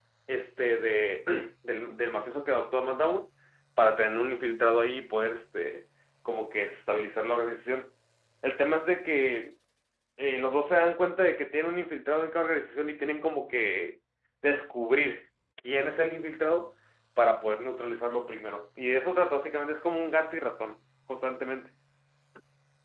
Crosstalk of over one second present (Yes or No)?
No